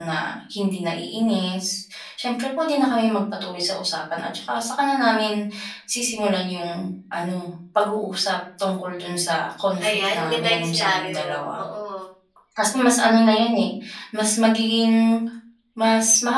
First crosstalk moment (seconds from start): 9.8 s

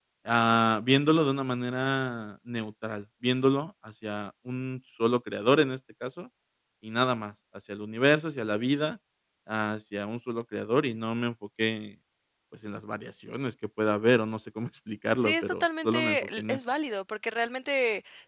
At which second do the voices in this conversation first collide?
15.2 s

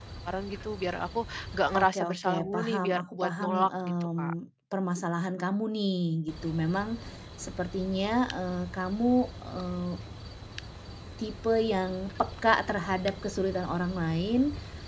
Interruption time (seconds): 1.7 s

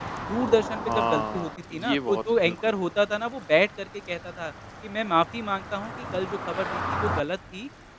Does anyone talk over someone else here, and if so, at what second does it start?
0.8 s

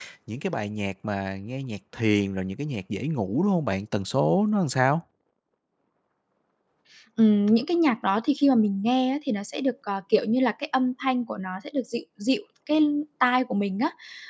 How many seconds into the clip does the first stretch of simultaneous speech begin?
none

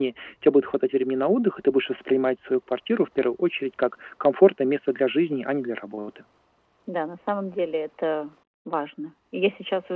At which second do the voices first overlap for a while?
none

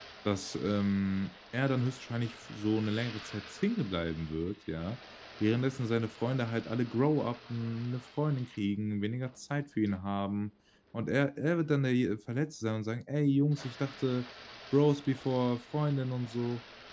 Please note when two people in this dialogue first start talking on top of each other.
none

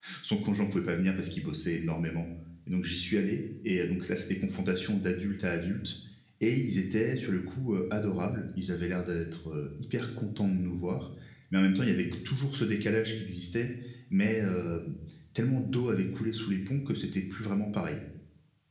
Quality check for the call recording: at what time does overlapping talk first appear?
none

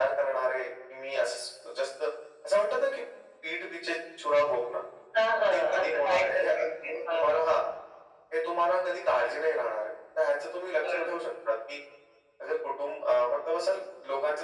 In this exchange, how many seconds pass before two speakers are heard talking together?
5.5 s

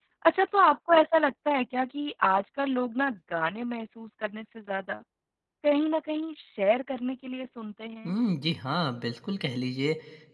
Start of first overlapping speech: none

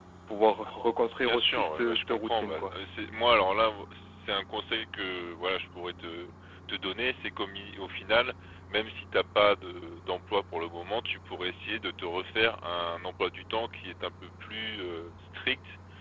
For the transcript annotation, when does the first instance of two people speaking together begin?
1.2 s

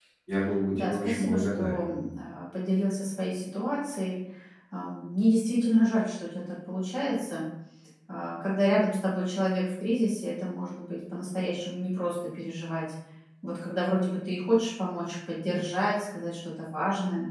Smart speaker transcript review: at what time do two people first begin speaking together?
0.7 s

